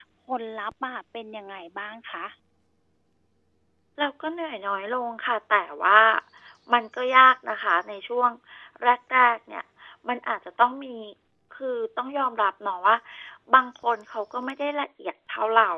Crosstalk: none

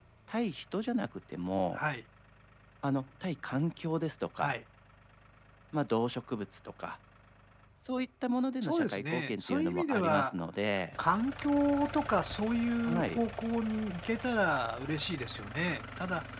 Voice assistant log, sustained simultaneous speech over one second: present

